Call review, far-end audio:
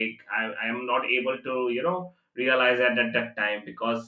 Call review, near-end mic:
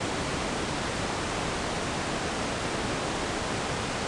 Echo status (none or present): none